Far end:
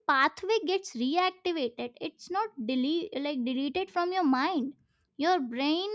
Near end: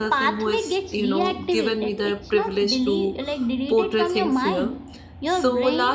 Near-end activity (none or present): present